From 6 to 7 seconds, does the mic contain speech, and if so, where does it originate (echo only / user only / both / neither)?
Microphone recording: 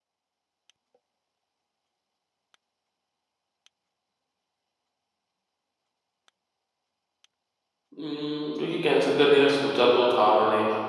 neither